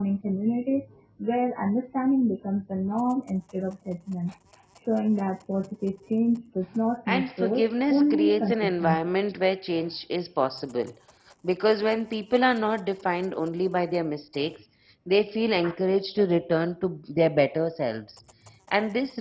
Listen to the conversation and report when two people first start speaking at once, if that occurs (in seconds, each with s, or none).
7.1 s